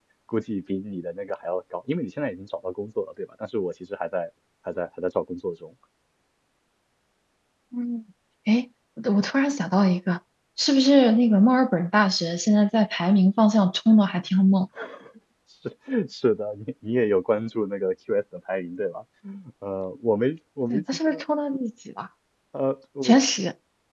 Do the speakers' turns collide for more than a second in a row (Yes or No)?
No